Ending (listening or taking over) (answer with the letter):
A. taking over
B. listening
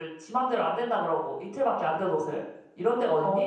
A